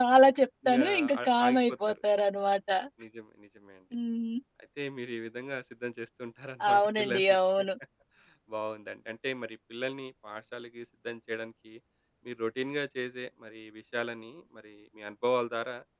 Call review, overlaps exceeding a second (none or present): present